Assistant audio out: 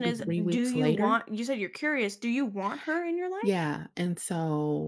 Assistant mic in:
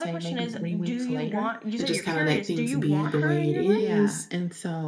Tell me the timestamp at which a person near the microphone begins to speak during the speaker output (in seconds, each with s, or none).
1.8 s